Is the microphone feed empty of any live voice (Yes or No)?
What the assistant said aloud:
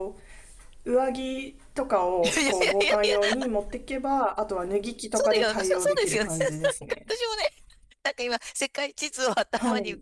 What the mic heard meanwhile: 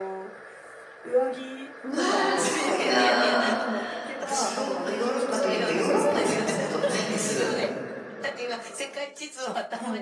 No